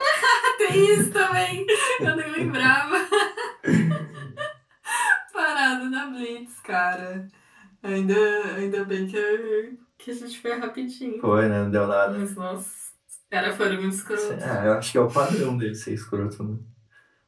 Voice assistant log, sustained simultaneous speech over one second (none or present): none